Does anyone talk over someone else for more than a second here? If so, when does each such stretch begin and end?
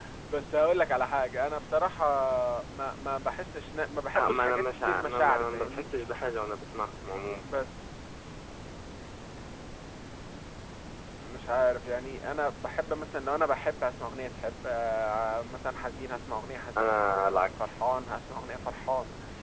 4.2-5.8

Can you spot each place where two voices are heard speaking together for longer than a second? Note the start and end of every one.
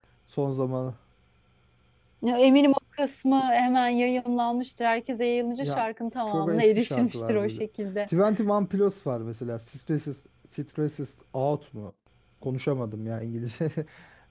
6.3-7.5

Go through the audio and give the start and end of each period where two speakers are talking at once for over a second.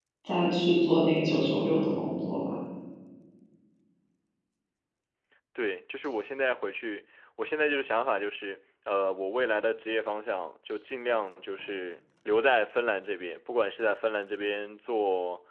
none

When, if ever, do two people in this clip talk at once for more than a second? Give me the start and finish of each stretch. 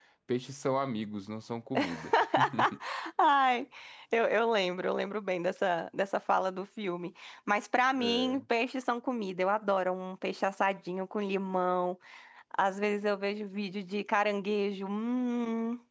none

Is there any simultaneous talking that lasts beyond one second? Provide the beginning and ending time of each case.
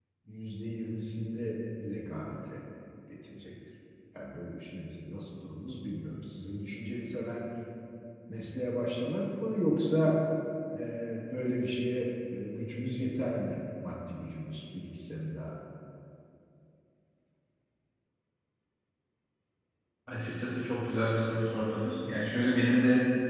none

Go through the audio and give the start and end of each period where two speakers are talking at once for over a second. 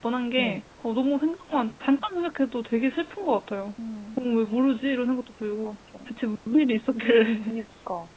none

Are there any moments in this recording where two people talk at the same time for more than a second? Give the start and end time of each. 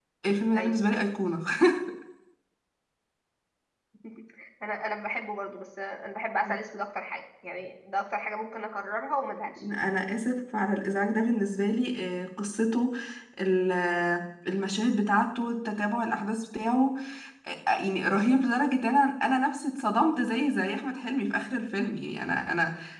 none

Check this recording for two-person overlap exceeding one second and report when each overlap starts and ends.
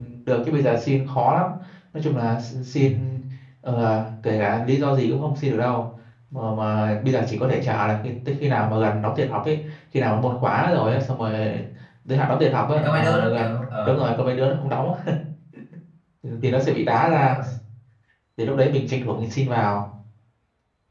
12.8-14.1

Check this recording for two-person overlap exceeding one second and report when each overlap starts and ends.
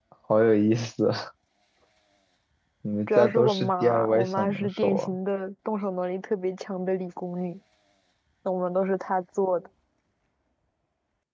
3.1-5.1

